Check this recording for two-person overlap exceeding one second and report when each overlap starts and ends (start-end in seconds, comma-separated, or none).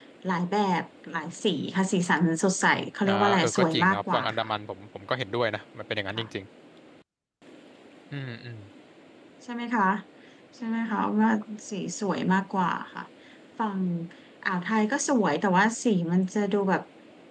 3.0-4.5